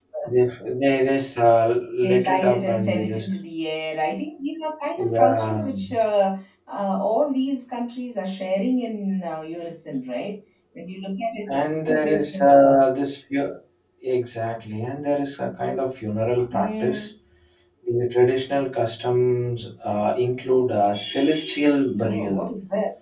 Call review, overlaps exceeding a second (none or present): present